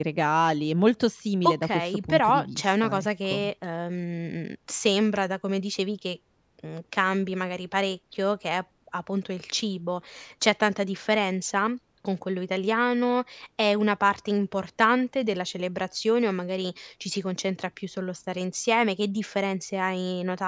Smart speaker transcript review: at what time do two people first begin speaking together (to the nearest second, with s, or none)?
1 s